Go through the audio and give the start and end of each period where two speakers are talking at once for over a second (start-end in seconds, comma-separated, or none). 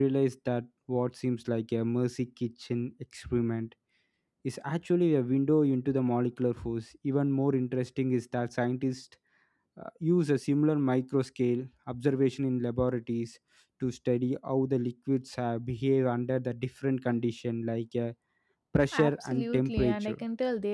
18.9-20.2